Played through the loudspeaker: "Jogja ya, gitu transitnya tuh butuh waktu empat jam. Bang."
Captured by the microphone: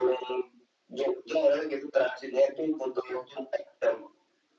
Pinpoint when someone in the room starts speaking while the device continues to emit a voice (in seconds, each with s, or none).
none